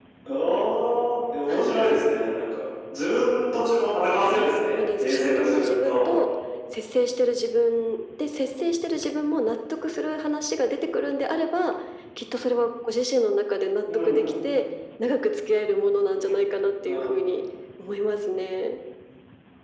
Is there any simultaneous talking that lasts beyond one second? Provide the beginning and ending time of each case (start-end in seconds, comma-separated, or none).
4.3-6.1